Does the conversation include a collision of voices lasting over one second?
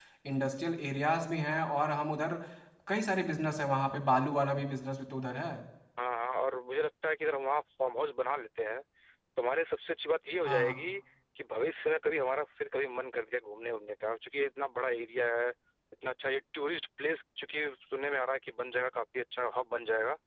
No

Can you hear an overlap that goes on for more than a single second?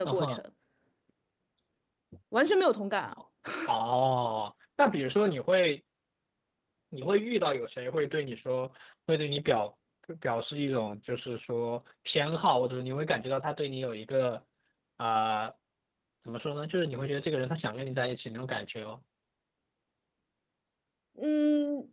No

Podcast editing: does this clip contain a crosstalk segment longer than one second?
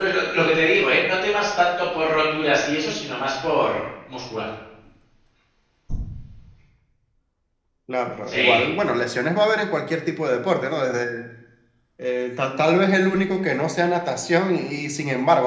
No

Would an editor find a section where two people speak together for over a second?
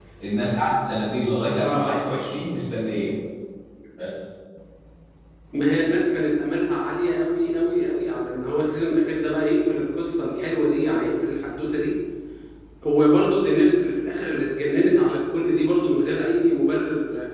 No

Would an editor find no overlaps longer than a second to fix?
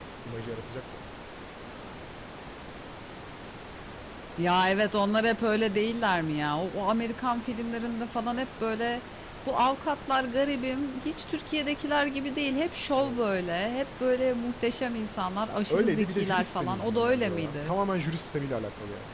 No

